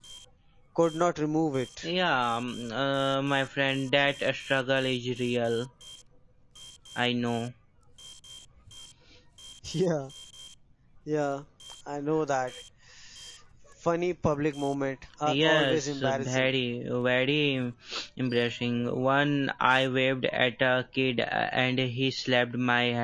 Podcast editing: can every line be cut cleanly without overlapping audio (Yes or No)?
No